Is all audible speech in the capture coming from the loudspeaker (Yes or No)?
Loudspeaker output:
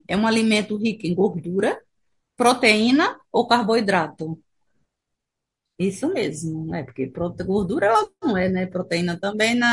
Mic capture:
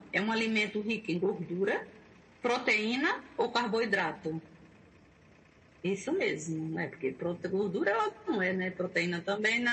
Yes